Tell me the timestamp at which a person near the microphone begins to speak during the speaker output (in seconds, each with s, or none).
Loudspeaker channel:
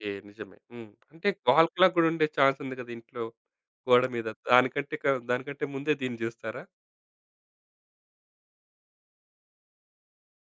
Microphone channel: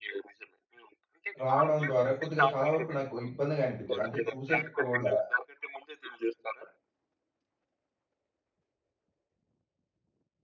1.4 s